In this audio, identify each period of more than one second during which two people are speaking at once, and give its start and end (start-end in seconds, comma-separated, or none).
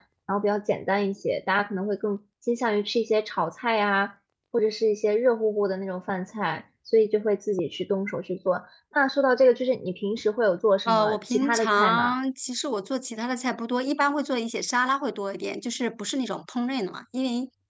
10.8-12.1